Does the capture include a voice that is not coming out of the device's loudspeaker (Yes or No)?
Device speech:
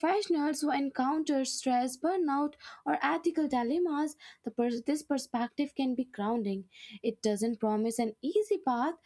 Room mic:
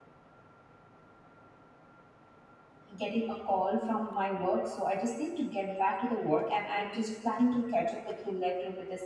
Yes